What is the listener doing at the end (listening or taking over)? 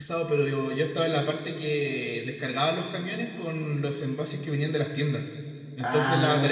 listening